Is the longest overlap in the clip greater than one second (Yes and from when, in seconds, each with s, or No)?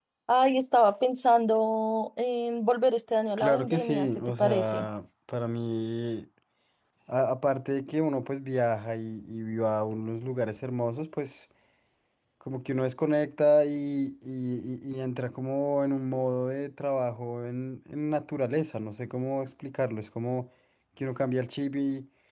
Yes, from 3.4 s